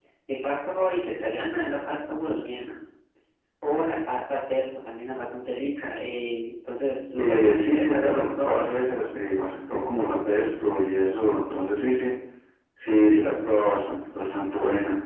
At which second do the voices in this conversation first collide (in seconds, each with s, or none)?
7.2 s